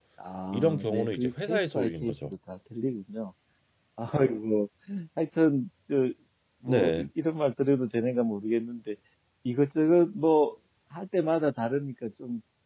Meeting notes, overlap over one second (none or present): present